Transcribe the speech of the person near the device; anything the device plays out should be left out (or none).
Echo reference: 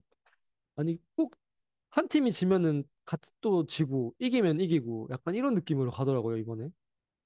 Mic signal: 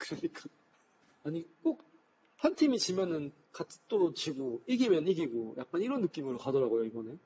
none